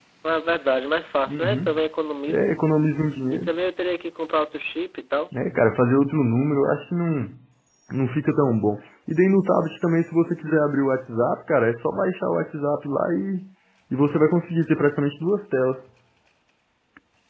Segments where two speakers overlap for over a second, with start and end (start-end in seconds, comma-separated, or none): none